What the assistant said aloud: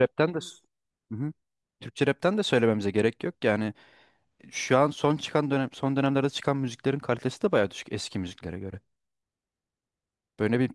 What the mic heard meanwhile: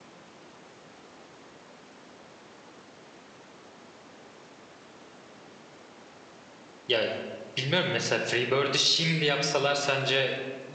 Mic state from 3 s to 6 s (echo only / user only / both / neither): neither